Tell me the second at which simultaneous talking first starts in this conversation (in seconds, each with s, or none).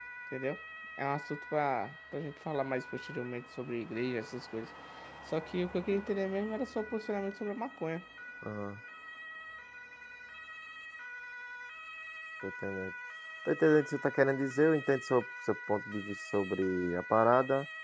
none